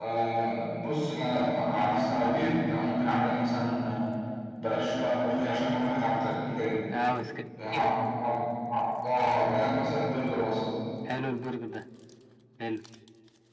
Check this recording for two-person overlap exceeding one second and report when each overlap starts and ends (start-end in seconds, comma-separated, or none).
none